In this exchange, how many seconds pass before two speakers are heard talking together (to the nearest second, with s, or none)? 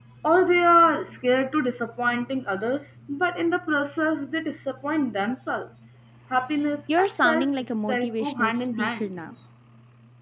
7 s